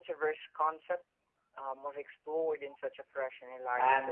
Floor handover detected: Yes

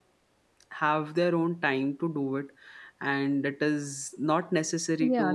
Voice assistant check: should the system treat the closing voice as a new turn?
Yes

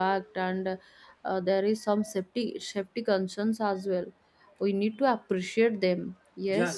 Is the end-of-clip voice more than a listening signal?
Yes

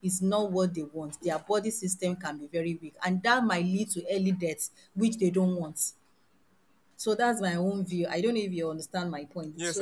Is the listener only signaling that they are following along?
No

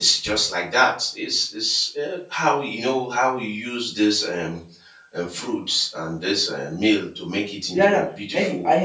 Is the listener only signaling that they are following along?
No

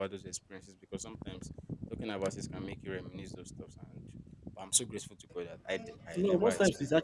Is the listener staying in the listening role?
No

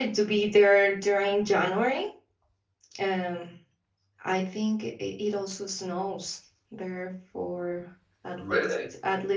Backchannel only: Yes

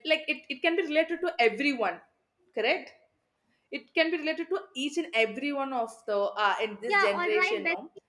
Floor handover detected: Yes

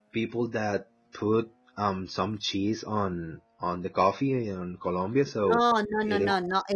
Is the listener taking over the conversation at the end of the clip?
Yes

